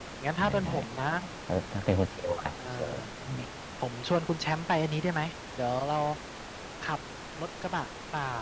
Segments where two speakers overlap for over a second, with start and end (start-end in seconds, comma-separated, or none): none